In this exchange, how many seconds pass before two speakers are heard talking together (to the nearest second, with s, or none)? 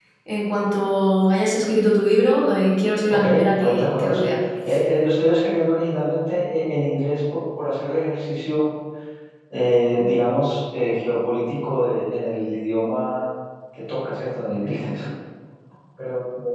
3 s